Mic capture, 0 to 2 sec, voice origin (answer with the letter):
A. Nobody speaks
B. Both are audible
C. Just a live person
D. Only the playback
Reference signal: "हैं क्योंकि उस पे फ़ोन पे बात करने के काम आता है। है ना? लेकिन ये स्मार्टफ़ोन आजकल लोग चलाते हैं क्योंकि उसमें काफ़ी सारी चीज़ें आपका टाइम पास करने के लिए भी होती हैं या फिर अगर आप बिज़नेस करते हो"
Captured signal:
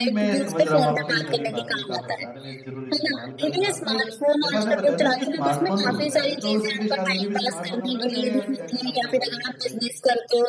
B